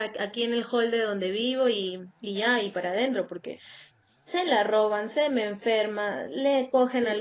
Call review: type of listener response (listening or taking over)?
listening